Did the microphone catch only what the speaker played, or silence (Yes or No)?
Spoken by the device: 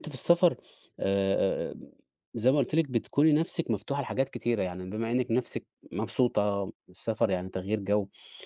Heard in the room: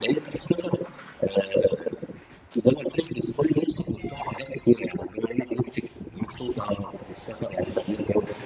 Yes